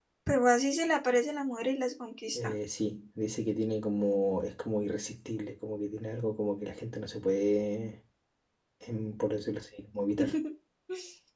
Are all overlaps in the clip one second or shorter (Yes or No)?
Yes